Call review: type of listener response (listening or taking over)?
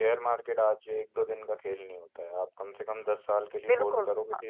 taking over